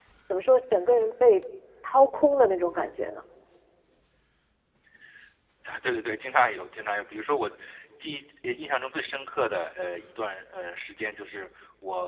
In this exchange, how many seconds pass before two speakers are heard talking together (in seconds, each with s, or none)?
none